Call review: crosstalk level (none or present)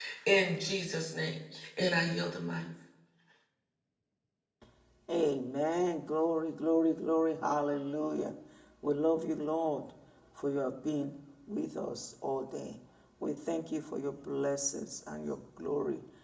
none